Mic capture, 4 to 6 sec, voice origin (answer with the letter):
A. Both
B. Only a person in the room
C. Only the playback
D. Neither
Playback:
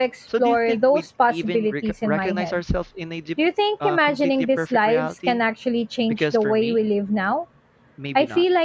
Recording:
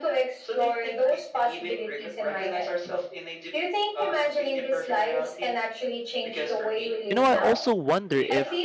C